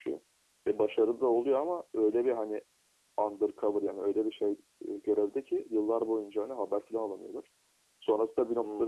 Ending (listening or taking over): listening